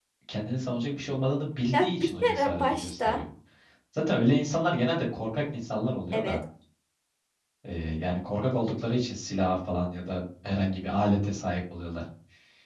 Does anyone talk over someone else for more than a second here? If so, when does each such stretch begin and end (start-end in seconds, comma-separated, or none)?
1.7-3.2